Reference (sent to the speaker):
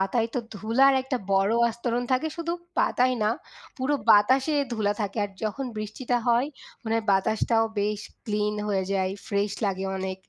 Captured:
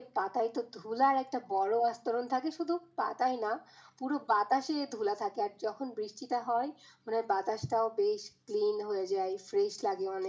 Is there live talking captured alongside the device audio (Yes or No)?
No